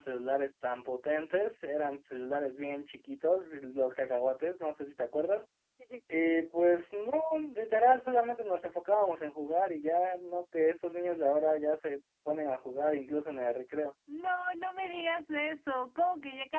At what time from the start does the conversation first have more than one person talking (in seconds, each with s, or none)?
none